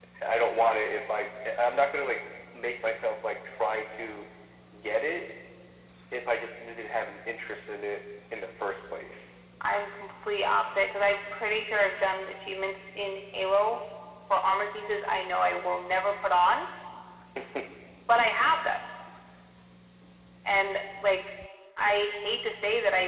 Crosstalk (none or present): none